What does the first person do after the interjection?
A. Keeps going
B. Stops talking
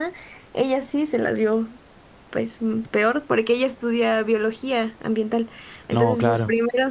A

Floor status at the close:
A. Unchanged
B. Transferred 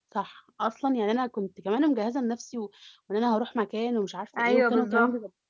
A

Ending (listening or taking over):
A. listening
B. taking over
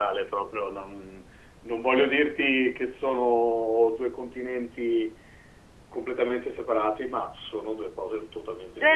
B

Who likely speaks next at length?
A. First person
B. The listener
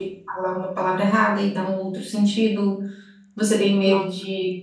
A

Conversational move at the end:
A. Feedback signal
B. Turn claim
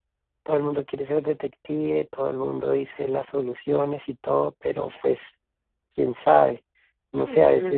A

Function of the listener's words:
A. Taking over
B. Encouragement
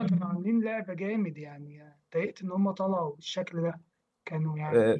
A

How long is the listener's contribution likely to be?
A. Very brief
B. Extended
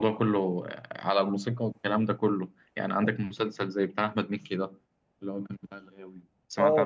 B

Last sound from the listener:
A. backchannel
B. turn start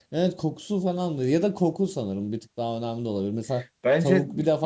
A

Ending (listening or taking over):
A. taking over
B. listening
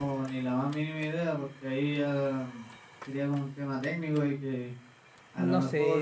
B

